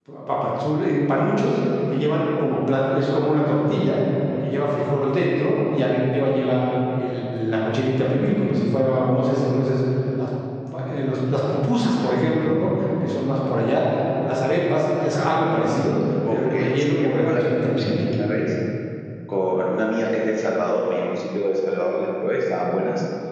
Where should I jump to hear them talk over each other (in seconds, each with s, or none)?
16.2 s